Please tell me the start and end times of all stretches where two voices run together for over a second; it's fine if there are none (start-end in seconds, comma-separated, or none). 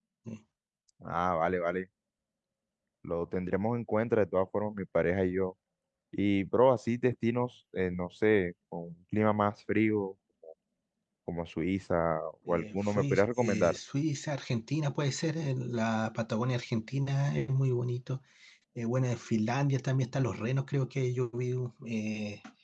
12.5-13.8